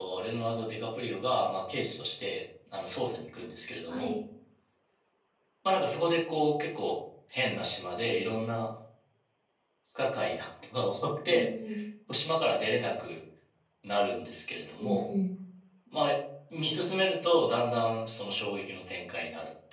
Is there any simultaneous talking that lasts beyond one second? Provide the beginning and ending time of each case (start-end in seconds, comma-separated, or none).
none